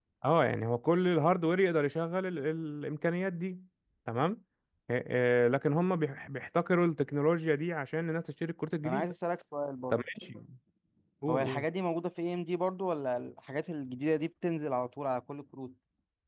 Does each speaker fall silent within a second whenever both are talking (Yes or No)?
Yes